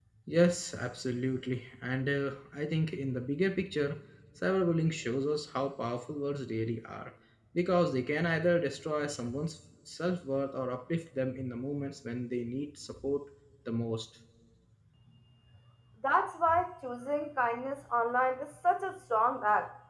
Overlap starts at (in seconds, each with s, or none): none